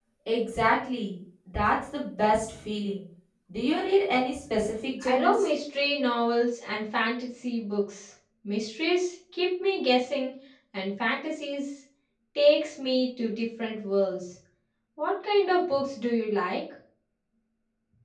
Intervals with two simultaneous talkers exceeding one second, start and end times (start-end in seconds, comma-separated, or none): none